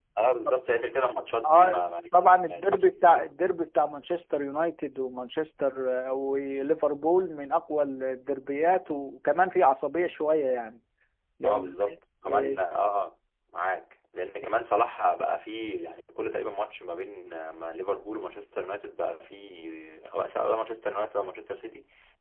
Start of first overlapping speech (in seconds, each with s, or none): 1.4 s